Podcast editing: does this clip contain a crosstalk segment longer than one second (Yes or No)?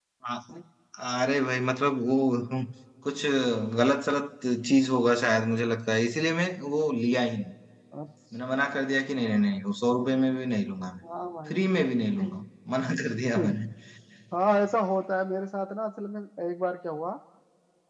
No